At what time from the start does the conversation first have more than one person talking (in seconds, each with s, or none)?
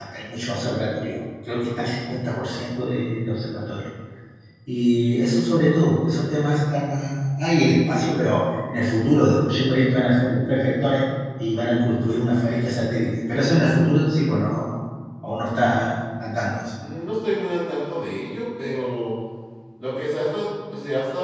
none